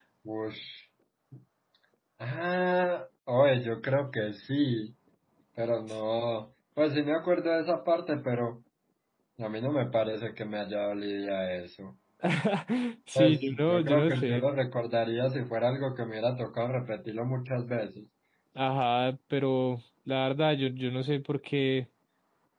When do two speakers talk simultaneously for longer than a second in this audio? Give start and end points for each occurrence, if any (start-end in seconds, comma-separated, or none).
13.2-14.4